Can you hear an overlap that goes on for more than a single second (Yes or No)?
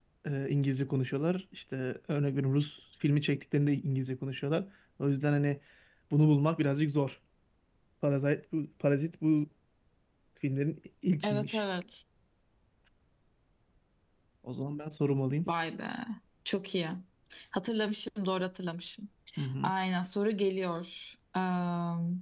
No